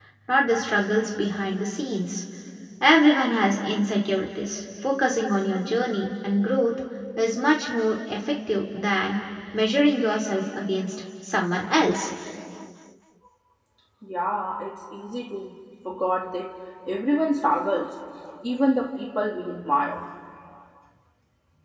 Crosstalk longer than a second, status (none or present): none